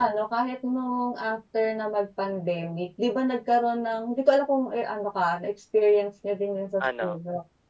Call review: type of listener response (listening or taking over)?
listening